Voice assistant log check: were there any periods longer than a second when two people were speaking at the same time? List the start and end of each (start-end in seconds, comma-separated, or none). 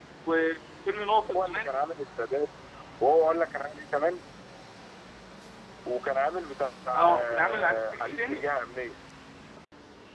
6.9-8.4